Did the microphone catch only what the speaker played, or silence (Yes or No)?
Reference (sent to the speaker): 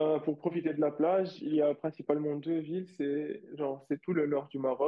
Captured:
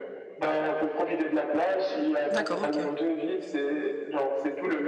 No